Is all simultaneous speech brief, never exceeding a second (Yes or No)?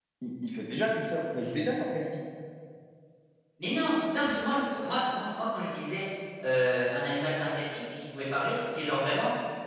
Yes